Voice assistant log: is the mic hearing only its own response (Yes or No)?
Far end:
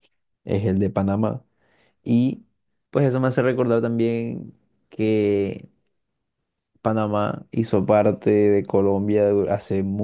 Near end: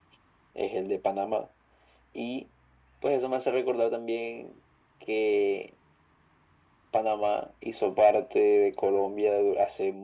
Yes